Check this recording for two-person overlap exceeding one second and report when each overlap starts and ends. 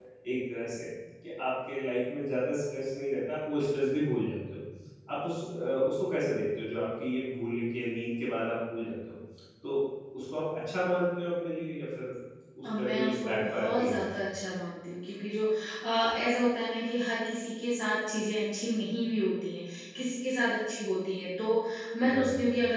12.6-14.0

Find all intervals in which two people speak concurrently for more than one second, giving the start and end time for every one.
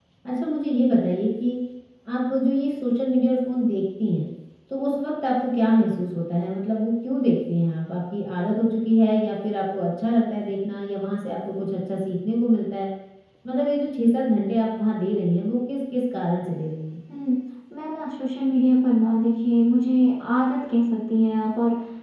none

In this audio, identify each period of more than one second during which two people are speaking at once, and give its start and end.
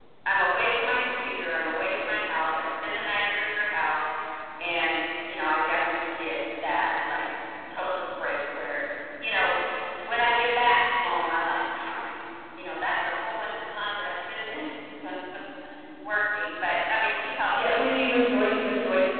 none

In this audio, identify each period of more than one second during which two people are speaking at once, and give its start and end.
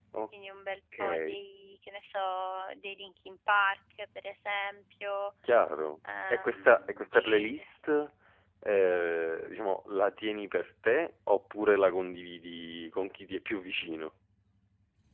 6.3-7.7

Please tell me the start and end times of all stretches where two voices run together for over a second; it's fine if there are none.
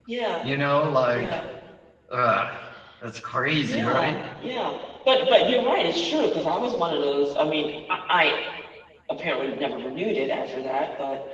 none

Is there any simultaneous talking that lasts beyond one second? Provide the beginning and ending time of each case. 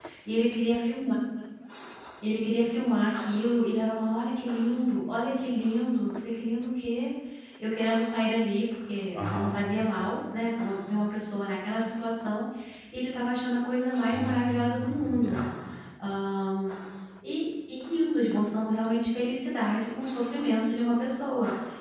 14.1-15.4

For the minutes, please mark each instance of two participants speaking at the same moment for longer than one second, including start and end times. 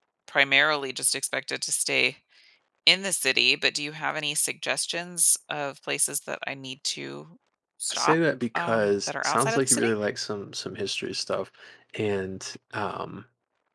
8.6-9.9

